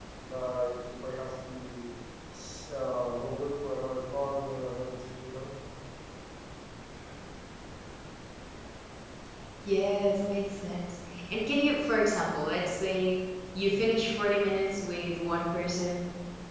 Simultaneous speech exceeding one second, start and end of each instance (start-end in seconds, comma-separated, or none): none